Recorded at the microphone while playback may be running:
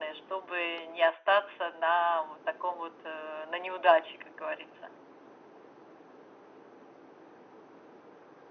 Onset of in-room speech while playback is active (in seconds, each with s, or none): none